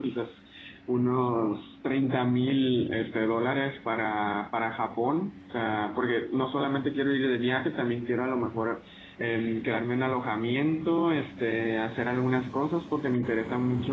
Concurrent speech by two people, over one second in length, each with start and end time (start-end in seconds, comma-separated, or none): none